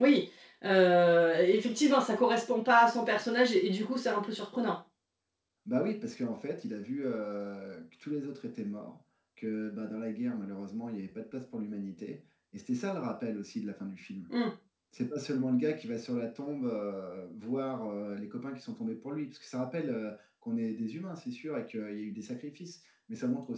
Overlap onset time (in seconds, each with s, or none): none